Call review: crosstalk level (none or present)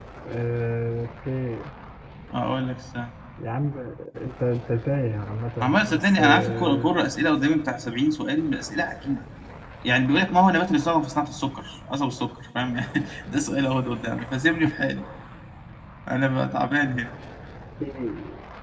present